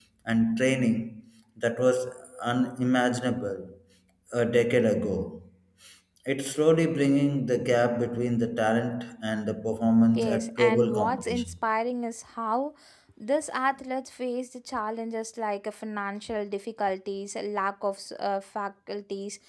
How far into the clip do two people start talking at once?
10.2 s

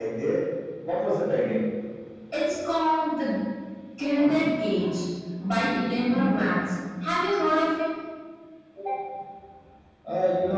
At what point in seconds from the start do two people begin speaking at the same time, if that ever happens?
none

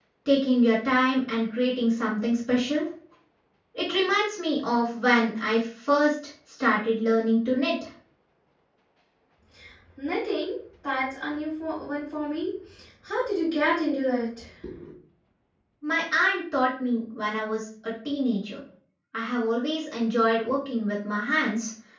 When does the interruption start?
none

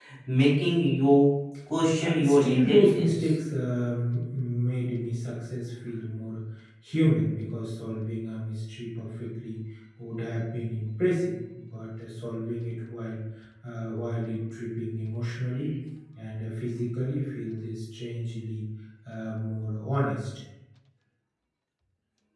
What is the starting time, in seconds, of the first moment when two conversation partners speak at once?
2.0 s

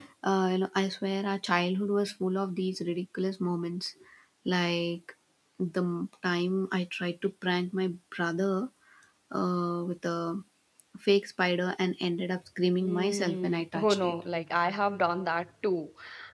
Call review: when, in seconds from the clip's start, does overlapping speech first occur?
12.8 s

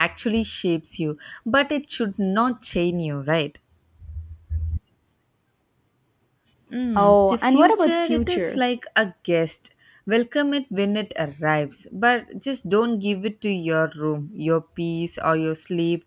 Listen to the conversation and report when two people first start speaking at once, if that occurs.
7.0 s

